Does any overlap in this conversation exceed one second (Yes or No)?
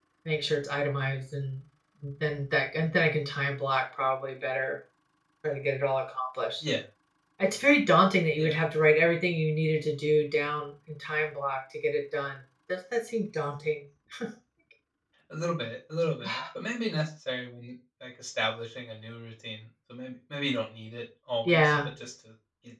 No